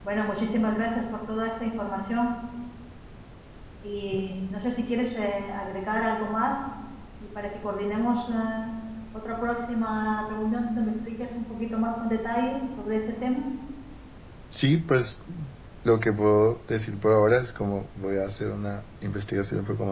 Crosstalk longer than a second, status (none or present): none